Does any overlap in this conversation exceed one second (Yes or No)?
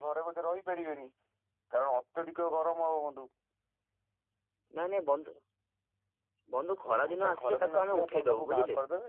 Yes